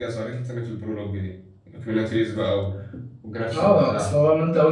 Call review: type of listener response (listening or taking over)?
taking over